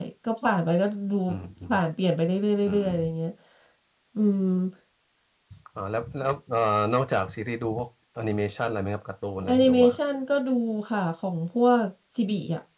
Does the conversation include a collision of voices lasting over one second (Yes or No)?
No